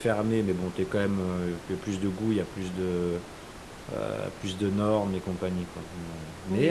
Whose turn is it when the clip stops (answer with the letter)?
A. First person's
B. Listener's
A